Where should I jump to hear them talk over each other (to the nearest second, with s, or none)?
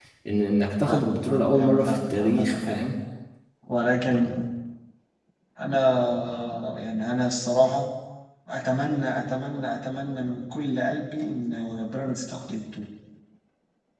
1 s